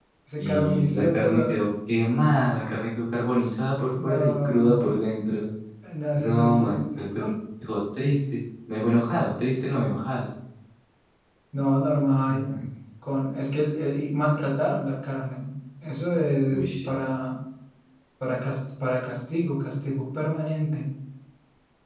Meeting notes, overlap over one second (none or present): present